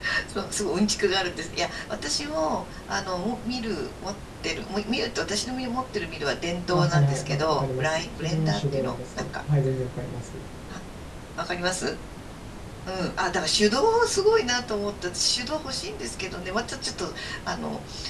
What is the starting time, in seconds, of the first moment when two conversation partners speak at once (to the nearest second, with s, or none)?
7 s